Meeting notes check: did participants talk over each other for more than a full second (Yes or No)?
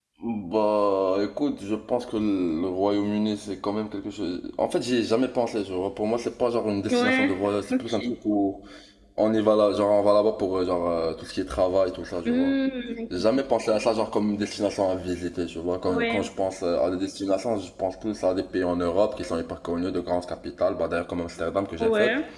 No